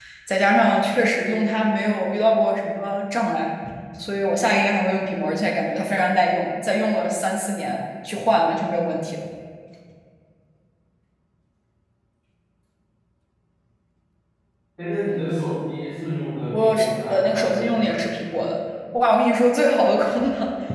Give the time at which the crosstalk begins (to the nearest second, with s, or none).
17 s